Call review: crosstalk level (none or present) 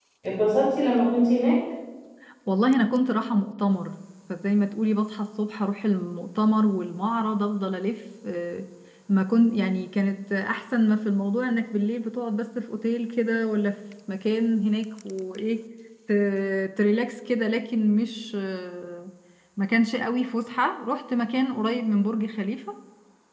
none